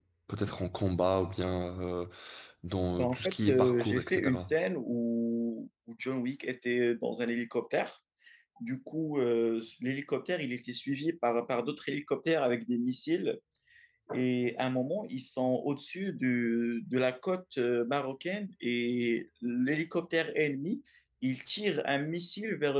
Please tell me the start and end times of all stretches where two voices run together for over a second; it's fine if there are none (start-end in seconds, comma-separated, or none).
3.0-4.5